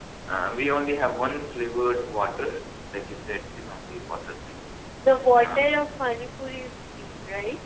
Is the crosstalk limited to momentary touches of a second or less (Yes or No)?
Yes